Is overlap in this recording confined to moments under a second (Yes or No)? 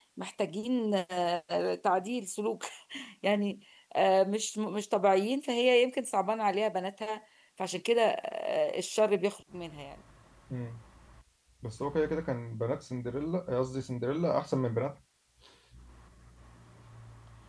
Yes